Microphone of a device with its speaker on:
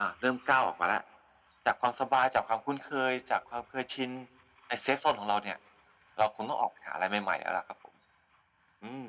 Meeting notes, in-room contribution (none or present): none